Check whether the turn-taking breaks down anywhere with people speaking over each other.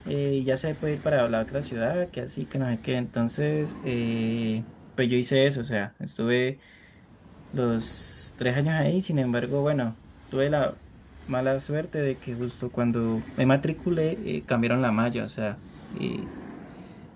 No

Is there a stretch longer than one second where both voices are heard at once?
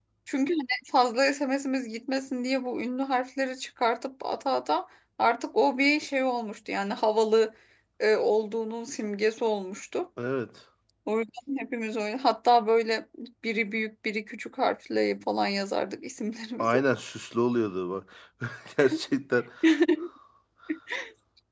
No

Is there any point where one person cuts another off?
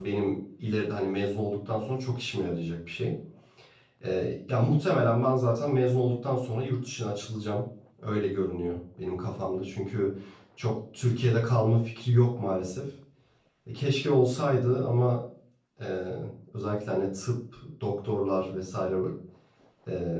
No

